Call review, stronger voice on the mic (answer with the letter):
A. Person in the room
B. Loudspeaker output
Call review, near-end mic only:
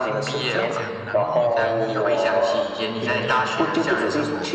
B